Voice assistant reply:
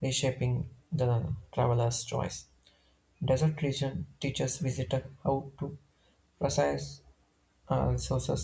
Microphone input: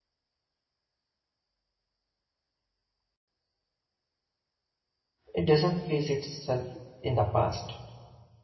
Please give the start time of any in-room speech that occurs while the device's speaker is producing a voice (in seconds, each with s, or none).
5.3 s